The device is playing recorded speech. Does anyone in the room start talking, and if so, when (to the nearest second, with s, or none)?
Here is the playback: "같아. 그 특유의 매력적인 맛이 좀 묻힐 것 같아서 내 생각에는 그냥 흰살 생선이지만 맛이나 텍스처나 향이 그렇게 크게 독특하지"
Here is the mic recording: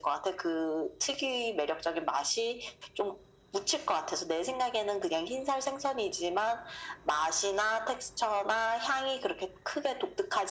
none